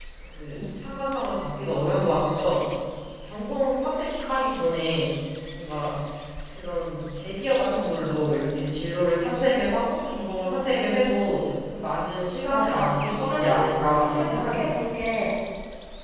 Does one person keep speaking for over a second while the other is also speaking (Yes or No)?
Yes